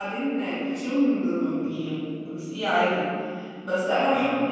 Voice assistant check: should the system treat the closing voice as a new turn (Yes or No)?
No